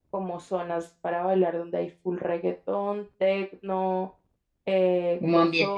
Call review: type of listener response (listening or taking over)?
listening